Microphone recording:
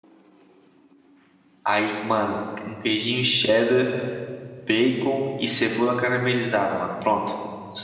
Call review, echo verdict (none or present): none